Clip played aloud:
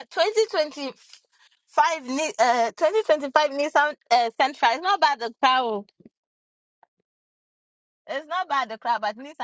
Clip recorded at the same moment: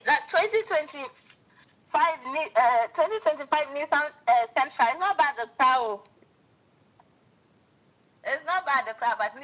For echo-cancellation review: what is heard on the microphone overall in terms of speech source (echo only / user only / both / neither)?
echo only